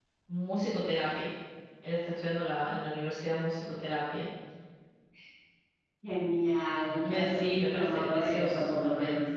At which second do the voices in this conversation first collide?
7 s

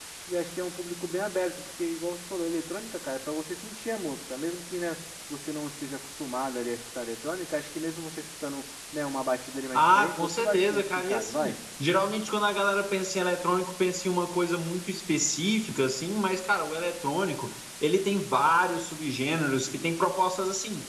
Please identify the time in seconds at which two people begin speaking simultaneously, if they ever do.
10 s

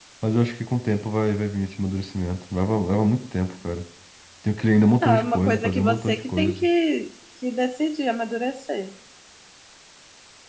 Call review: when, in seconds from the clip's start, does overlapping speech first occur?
5 s

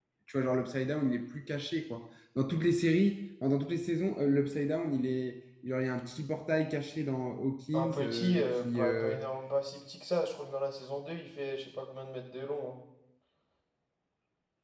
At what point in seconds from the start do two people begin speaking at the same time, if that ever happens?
8 s

